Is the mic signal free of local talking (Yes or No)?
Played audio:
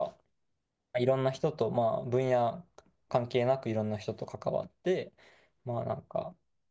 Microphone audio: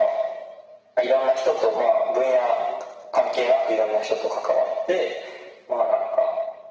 Yes